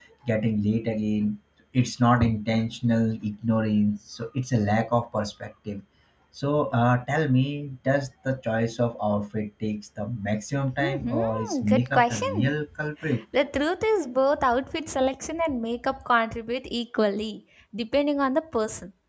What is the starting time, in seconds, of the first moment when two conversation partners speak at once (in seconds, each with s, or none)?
10.7 s